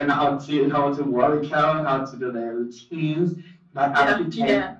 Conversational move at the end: listening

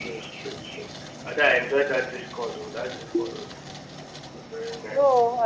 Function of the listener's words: taking over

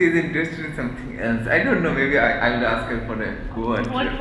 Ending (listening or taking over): taking over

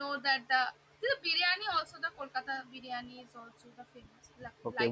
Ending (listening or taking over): taking over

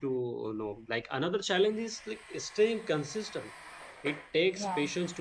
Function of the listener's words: listening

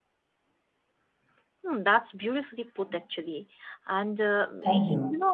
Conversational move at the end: listening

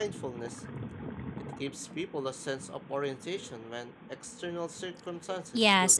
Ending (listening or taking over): taking over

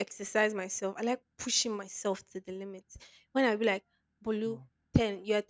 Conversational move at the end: listening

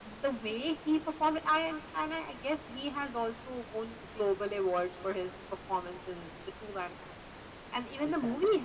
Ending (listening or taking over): listening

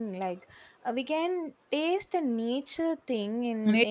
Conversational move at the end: taking over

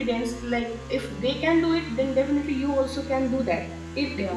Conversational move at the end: listening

